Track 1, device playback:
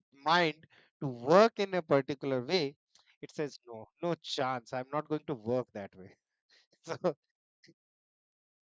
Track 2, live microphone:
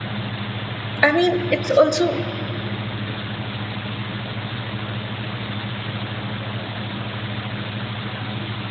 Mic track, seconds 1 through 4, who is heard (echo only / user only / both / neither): user only